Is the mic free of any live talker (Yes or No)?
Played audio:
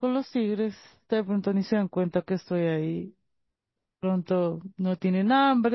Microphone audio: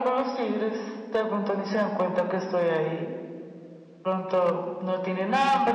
Yes